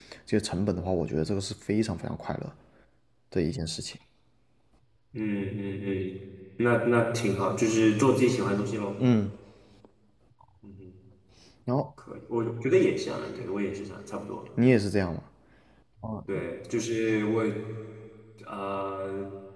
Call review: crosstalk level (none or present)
none